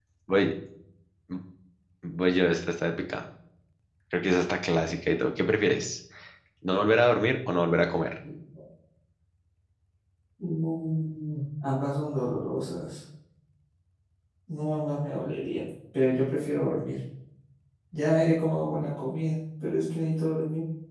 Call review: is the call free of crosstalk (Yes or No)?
Yes